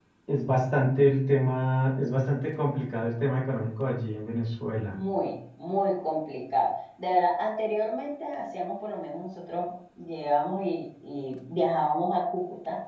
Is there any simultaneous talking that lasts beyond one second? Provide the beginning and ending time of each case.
none

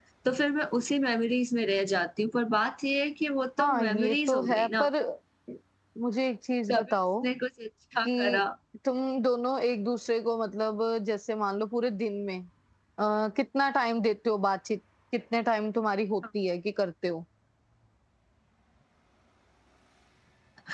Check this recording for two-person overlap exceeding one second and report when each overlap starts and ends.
3.6-4.8

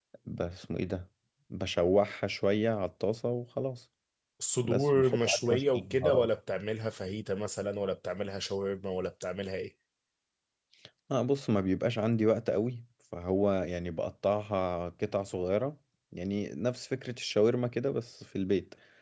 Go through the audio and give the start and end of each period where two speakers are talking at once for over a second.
4.6-6.3

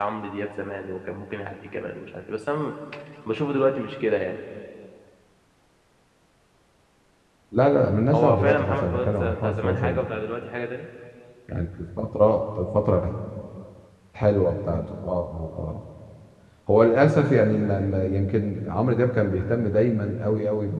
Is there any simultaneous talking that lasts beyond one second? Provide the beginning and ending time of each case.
8.1-10.1

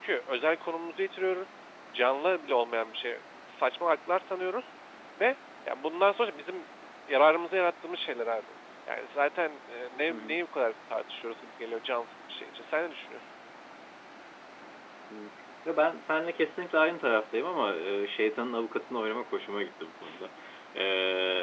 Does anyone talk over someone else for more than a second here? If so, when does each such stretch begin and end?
none

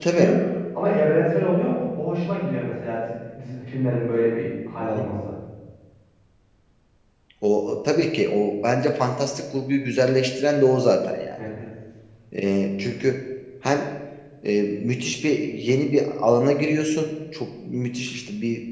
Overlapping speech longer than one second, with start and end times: none

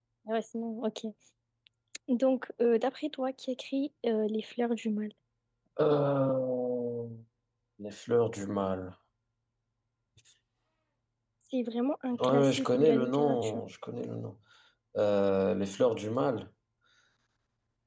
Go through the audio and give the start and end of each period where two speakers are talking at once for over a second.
12.2-13.6

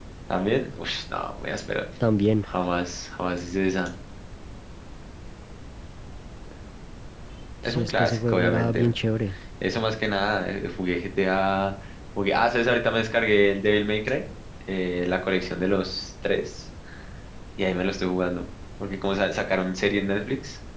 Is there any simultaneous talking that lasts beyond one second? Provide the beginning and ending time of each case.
7.6-8.9

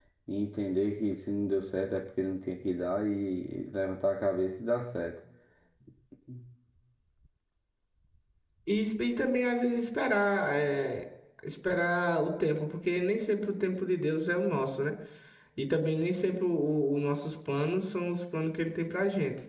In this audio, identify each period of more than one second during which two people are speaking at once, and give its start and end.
none

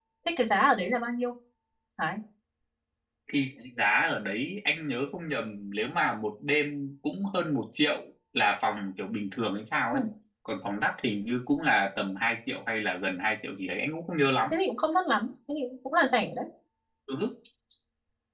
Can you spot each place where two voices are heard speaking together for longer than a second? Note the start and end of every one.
none

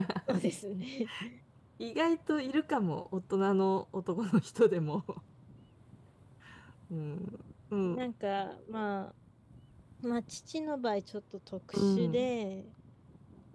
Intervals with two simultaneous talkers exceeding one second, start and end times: none

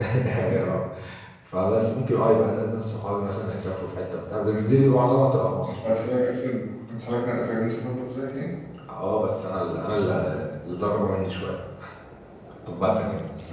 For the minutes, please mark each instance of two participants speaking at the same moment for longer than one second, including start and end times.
none

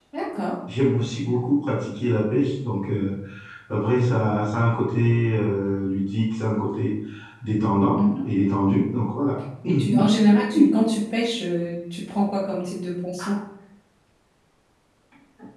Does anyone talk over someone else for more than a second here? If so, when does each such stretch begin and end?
none

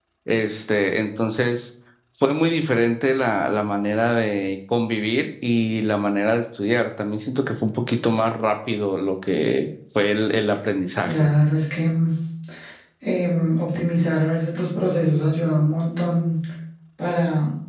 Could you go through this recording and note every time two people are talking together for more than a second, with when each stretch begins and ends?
none

